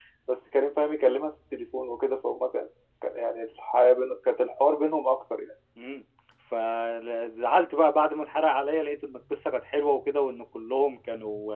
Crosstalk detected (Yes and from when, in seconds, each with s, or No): No